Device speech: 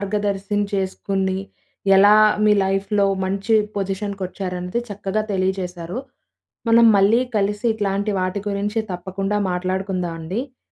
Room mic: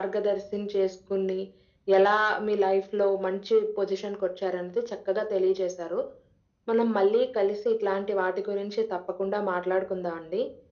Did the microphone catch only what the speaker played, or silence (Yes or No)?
Yes